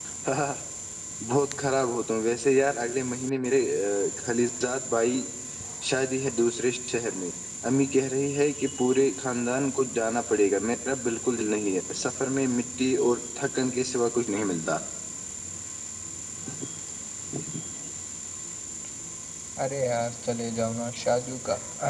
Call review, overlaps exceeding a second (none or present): none